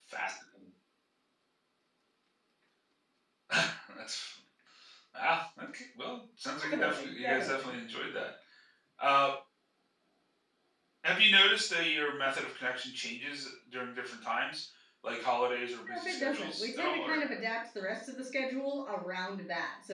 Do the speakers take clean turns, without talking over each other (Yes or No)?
No